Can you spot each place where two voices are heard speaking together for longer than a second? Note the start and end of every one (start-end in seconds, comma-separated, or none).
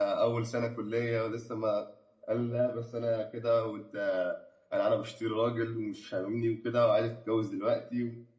none